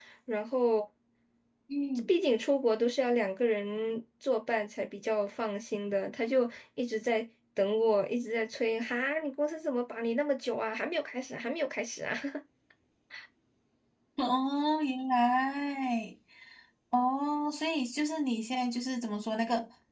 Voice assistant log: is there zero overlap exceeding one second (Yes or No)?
Yes